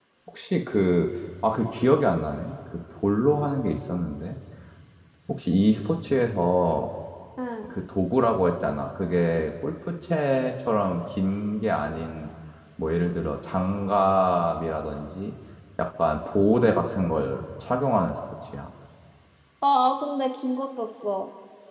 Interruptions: none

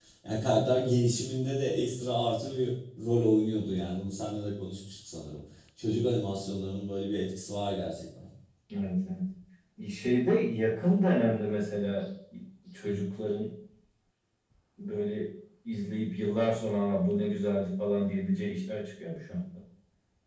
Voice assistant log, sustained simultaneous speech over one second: none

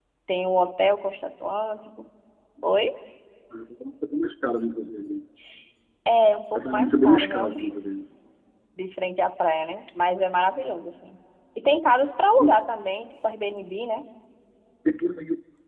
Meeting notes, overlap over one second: present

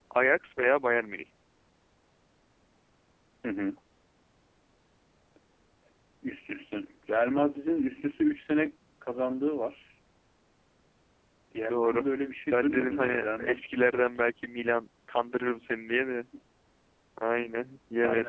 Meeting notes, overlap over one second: present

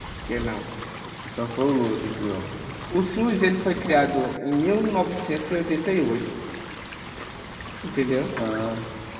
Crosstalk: none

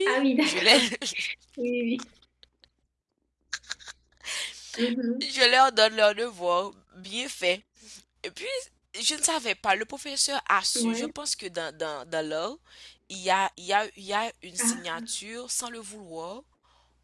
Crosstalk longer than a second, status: none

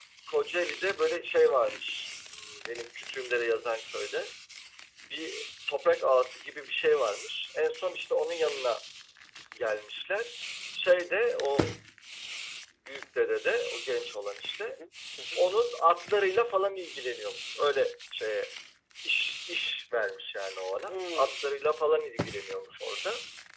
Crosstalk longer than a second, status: none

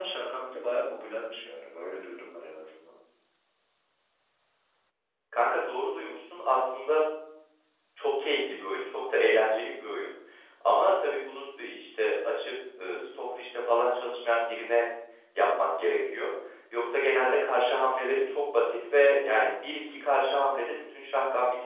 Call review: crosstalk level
none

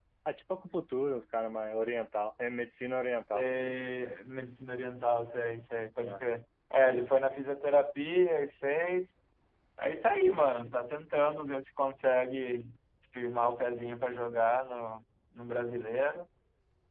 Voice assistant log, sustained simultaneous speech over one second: none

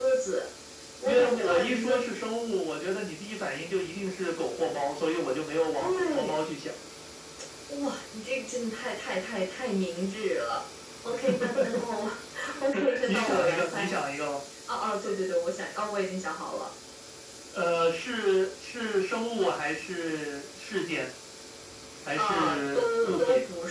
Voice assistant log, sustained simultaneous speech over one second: present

